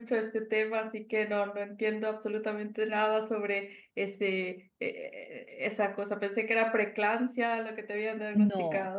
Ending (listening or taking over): taking over